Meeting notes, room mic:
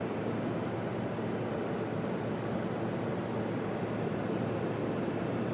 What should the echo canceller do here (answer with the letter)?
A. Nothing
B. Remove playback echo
A